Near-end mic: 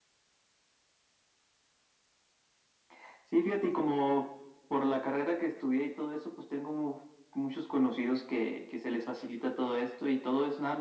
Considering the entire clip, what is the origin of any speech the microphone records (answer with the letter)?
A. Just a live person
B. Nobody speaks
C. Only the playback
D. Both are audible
C